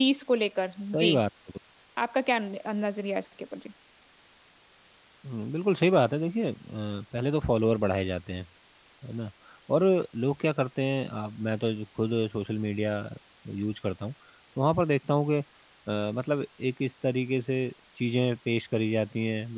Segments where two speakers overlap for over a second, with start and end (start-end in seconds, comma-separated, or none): none